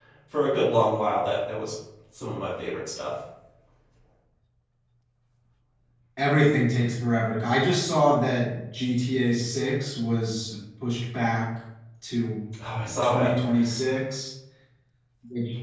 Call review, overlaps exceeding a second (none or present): none